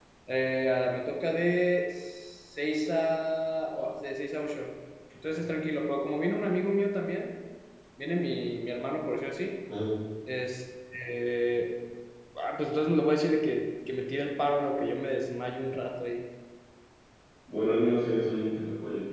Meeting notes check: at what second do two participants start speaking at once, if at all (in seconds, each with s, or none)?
none